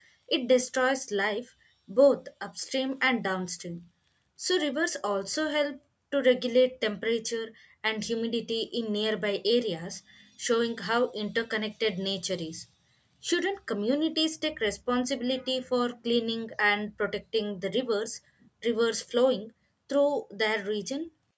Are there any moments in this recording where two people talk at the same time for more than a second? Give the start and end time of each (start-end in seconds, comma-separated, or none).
none